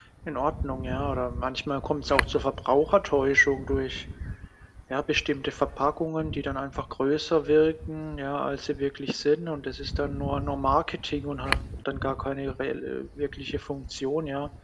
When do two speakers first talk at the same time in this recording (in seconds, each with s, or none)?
none